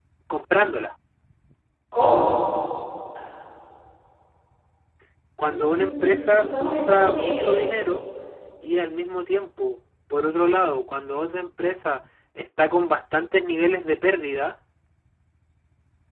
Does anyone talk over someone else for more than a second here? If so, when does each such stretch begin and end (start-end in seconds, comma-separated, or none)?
5.4-7.6